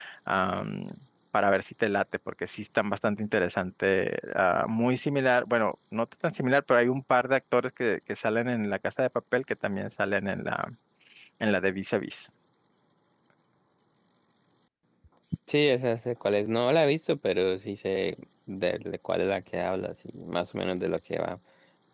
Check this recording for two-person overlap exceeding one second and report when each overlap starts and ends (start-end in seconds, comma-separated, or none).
none